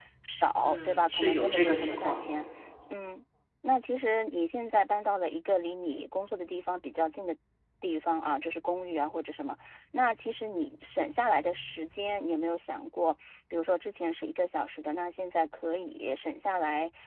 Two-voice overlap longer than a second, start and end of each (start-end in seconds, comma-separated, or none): 0.6-2.2